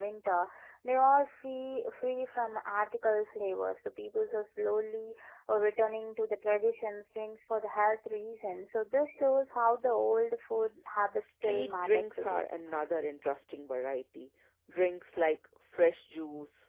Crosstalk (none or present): present